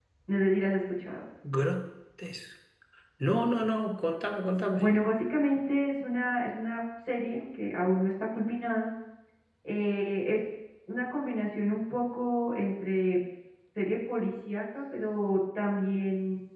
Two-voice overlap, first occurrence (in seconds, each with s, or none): none